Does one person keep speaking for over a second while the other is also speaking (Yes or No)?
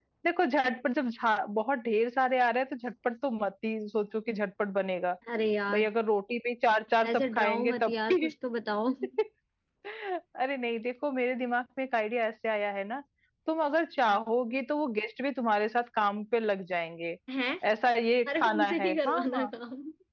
Yes